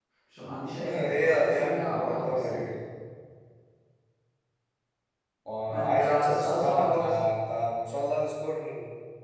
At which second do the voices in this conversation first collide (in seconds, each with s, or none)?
0.8 s